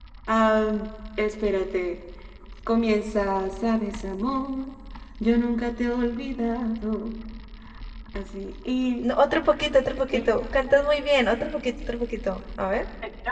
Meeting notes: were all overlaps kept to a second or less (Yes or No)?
Yes